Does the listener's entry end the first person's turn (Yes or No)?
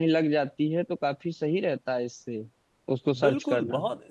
Yes